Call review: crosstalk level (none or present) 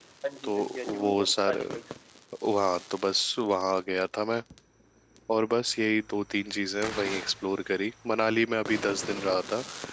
present